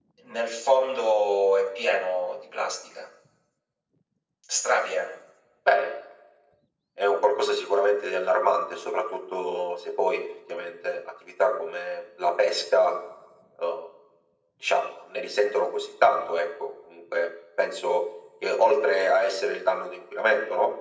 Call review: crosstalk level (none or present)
none